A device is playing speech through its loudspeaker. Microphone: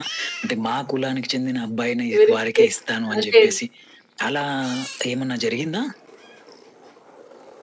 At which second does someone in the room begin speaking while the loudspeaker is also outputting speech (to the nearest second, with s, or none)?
2 s